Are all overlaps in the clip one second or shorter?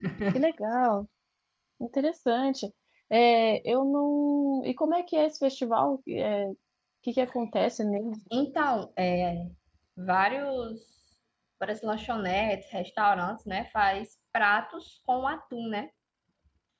Yes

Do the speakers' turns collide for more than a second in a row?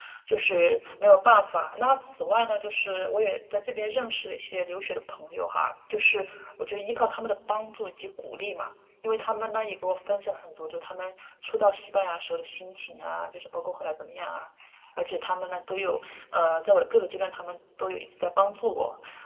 No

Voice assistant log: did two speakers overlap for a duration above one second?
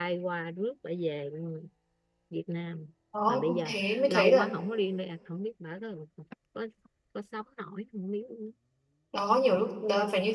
Yes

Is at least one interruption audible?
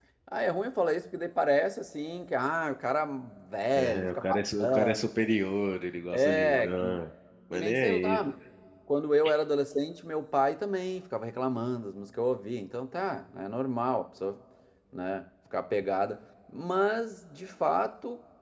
Yes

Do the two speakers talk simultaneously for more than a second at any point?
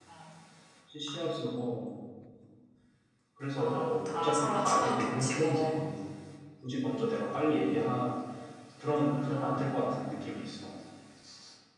Yes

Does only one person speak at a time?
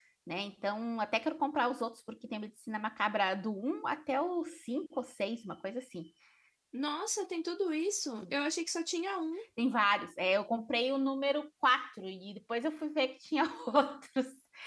Yes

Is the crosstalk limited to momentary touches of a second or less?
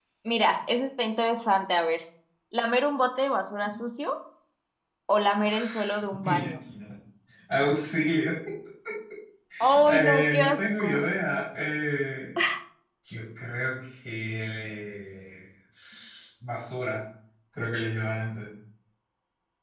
No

